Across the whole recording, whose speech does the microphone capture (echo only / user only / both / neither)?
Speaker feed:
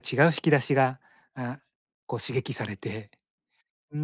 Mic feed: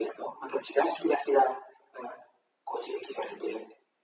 echo only